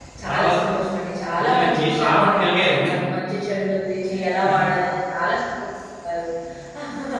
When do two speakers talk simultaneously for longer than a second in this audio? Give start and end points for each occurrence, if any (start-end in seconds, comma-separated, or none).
1.4-2.9